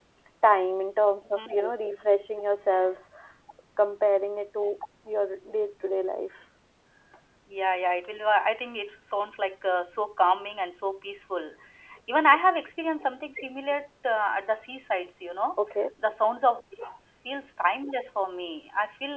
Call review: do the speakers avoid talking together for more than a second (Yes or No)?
Yes